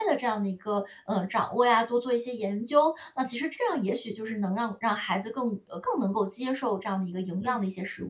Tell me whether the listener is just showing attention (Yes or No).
No